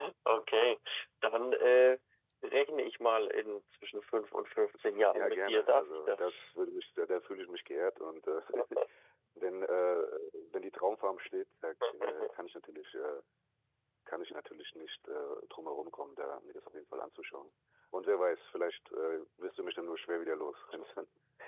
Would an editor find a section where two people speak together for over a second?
Yes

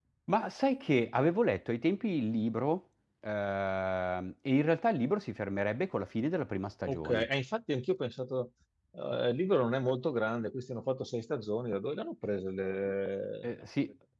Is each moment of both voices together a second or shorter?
Yes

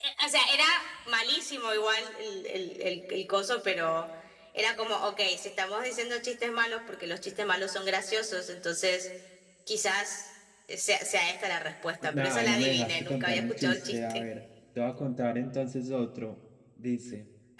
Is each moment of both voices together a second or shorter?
No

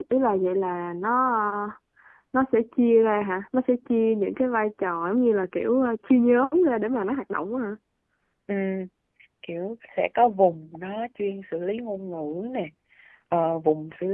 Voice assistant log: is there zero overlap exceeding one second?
Yes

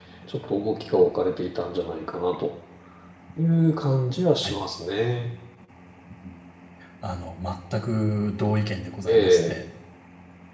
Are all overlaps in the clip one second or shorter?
Yes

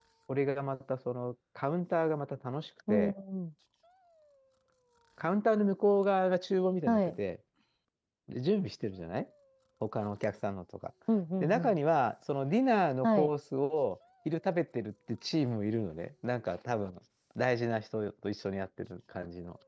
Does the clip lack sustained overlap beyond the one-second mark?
Yes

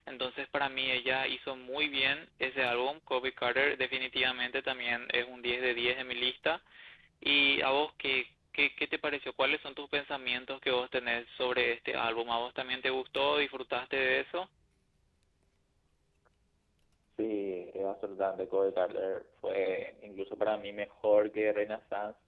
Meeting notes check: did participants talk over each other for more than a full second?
No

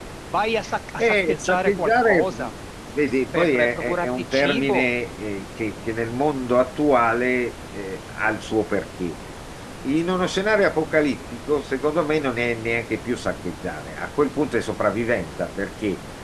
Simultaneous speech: Yes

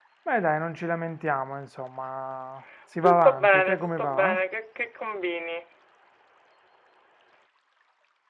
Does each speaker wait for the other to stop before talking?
No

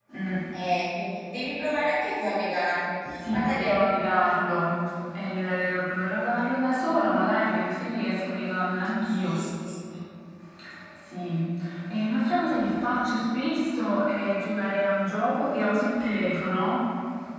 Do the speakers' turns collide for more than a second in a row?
Yes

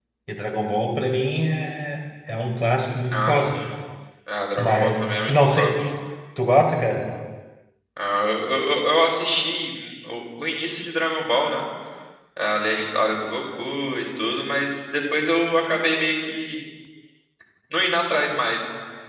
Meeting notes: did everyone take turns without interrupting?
No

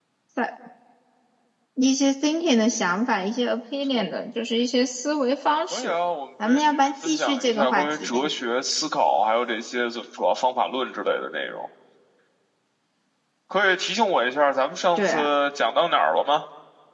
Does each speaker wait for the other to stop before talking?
No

